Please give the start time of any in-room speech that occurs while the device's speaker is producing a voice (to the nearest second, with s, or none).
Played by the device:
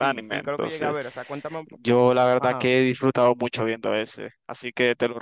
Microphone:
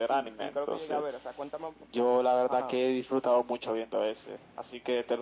none